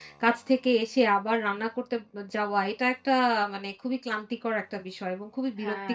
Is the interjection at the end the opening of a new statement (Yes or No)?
No